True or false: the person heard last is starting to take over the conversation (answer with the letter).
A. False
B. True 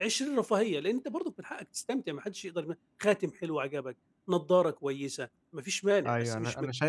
B